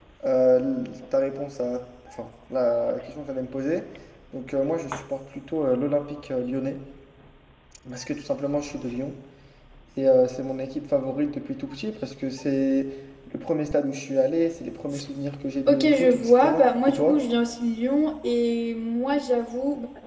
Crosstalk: present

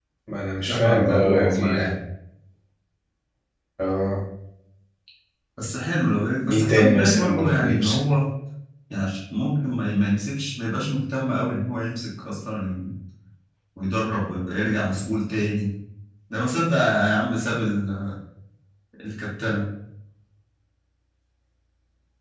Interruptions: present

